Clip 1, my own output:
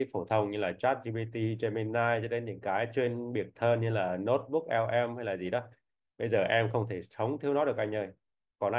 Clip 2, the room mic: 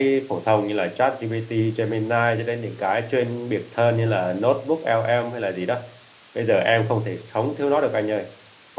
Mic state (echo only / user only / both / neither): echo only